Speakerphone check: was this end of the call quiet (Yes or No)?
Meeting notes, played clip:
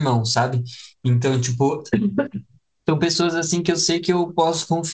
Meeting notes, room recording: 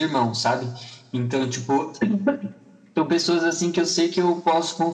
Yes